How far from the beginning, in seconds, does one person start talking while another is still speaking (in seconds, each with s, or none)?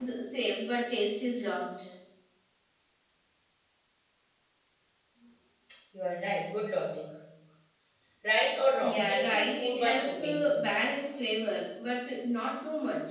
8.8 s